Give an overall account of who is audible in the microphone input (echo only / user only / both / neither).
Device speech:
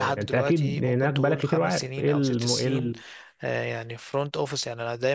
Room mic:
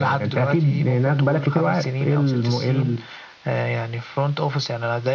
echo only